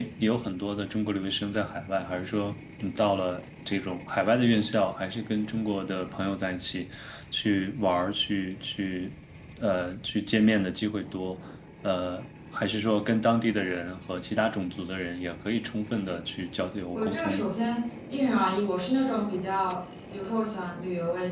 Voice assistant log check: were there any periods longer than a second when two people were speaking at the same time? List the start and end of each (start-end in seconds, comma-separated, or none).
none